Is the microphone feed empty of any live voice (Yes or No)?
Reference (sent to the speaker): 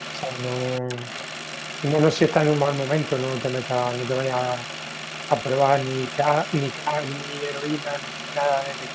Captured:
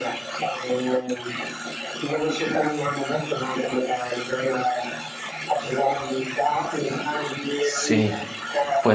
No